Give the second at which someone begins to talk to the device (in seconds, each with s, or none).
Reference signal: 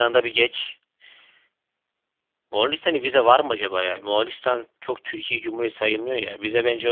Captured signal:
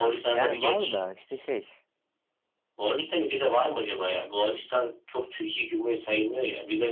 0.3 s